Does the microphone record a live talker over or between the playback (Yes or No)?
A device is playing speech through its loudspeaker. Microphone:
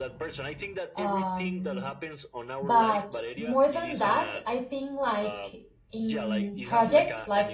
Yes